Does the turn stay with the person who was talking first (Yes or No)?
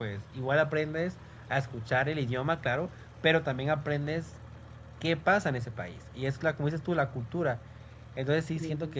Yes